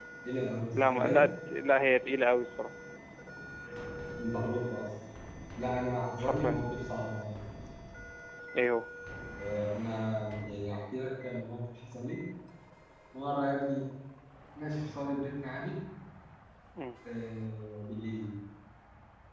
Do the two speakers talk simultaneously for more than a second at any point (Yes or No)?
No